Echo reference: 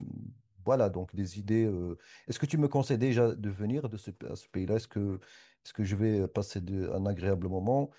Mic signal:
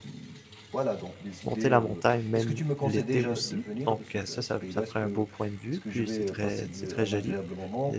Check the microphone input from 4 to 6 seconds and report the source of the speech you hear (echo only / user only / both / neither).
both